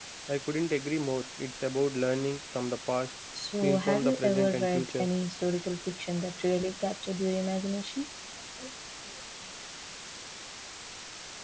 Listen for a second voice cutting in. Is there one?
Yes, from 3.6 s

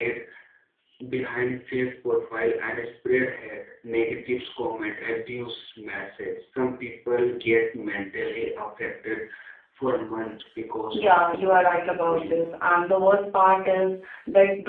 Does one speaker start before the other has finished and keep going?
Yes, from 10.9 s

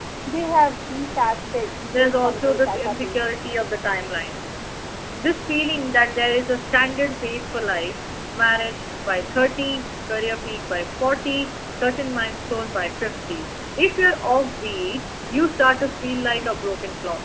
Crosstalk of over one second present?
Yes, from 1.9 s

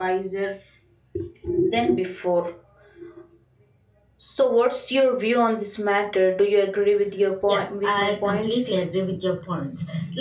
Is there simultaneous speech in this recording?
Yes, from 7.5 s

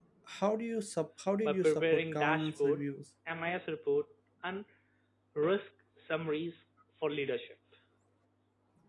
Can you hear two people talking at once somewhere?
Yes, from 1.4 s

